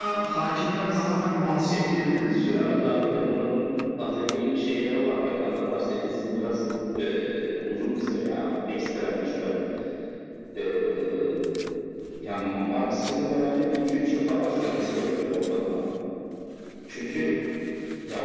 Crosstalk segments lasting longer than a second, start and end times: 1.7-3.2

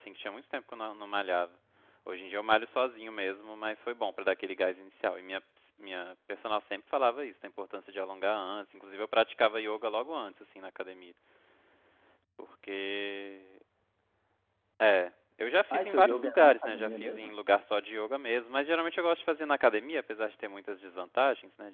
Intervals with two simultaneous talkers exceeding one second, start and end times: 15.7-17.3

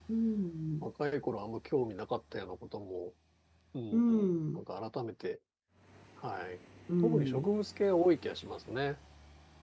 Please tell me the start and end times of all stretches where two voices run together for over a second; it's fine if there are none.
none

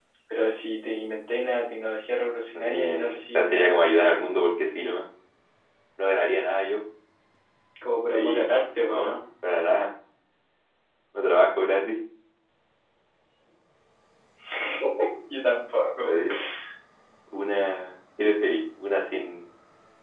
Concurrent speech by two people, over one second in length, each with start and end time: 2.5-3.9

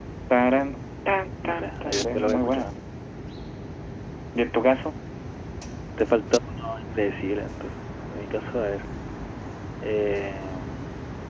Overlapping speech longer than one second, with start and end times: 1.4-2.7

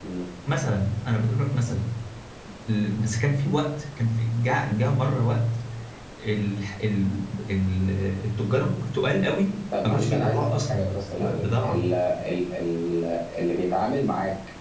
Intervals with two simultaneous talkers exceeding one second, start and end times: 9.8-11.9

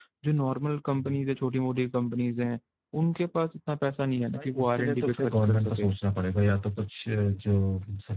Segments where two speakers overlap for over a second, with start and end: 4.4-5.9

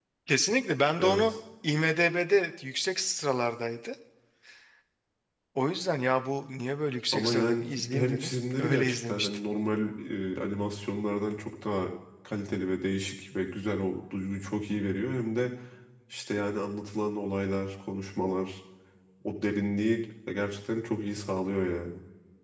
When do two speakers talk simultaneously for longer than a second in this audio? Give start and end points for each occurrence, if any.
7.1-9.4

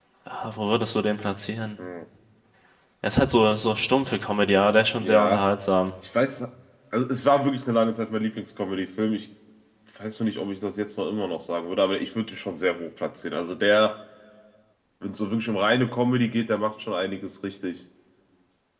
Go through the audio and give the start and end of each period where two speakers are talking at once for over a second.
none

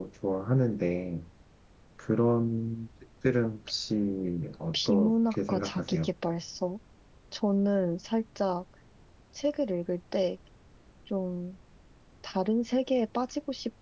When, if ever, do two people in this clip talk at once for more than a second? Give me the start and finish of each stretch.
4.7-6.1

